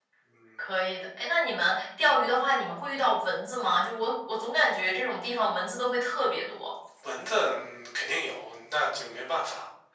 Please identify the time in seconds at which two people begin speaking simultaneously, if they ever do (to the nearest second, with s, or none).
none